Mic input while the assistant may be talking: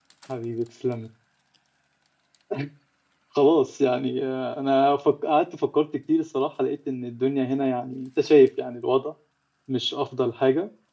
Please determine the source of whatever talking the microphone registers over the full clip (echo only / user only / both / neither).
user only